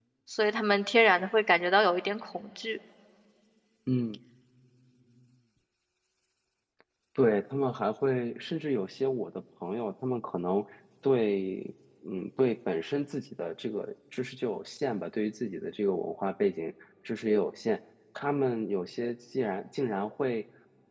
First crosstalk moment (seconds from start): none

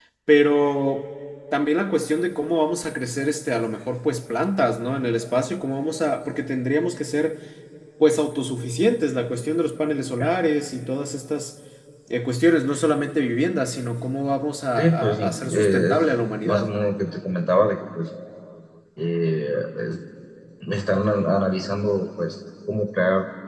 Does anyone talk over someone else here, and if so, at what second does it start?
14.8 s

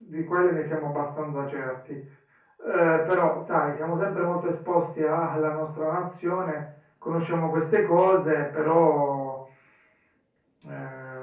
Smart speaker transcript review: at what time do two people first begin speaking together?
none

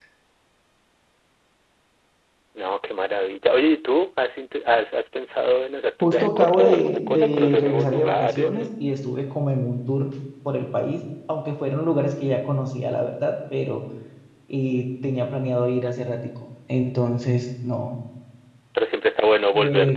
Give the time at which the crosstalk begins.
6.0 s

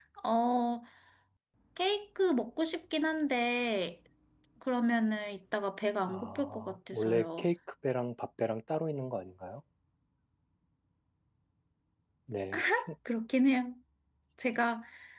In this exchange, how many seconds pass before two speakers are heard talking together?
6.1 s

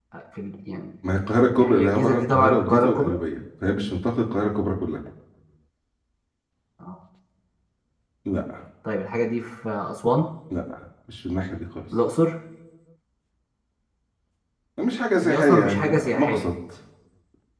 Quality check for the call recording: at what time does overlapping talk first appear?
1.6 s

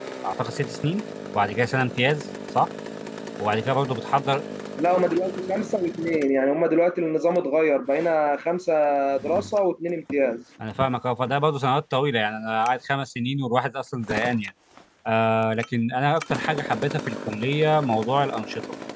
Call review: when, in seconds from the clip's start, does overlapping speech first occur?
none

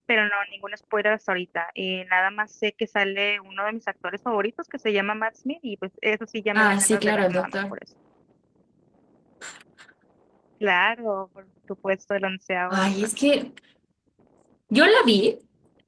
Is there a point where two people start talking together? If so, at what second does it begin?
6.6 s

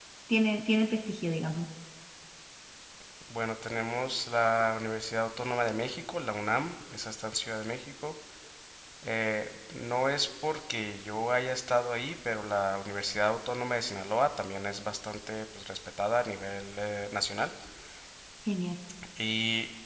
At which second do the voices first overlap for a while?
none

